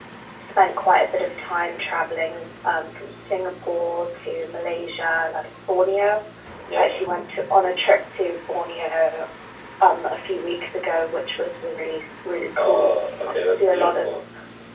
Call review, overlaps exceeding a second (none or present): present